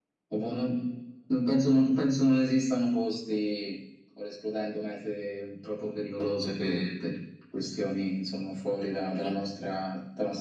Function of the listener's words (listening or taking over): listening